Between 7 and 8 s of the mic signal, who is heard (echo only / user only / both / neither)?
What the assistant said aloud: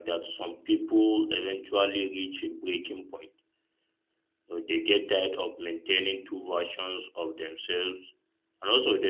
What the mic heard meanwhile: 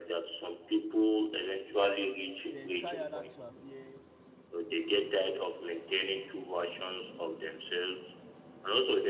echo only